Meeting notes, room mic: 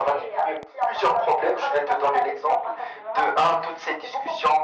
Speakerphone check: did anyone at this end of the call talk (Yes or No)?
No